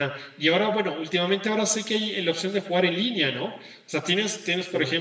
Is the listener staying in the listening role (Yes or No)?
Yes